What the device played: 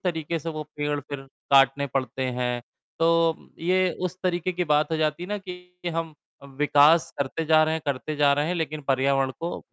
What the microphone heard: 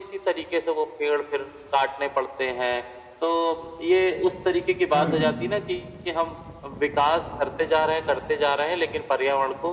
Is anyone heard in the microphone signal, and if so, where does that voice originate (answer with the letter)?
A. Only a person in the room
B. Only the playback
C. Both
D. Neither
C